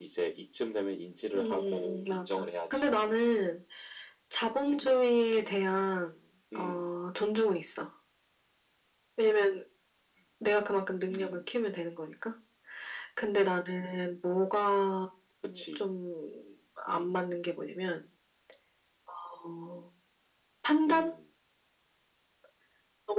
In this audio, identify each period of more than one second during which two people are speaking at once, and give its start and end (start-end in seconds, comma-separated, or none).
1.4-2.9